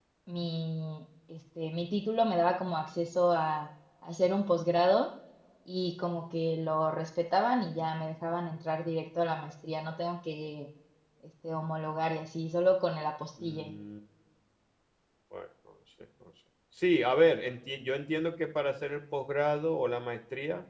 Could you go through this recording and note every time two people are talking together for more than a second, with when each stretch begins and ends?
none

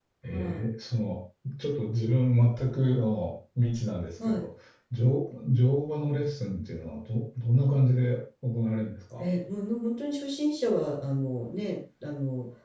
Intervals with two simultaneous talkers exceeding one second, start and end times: none

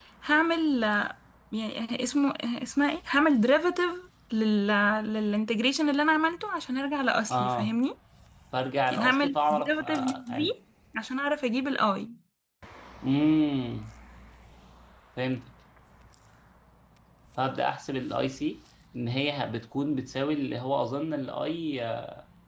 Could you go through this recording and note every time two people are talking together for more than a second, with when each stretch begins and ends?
8.9-10.5

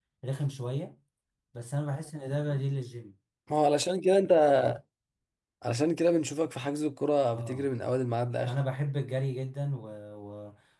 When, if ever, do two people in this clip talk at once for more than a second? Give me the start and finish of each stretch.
none

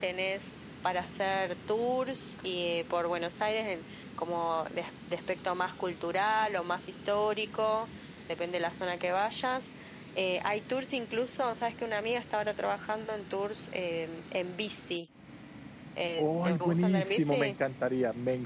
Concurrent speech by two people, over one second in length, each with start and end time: 16.2-17.5

